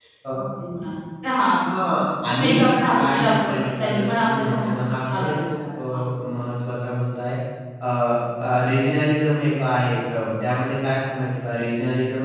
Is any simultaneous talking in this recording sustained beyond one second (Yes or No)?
Yes